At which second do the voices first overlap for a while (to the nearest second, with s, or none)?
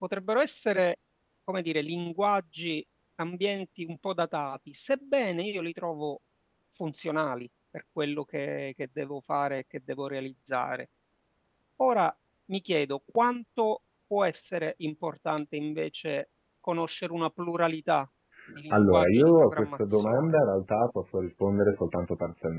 19 s